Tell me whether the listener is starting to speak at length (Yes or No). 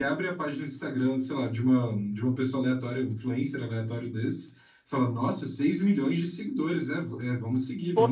No